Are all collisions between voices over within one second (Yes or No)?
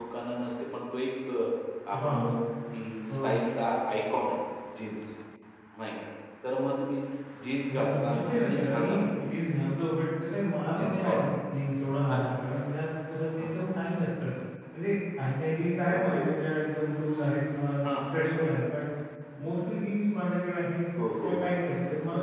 No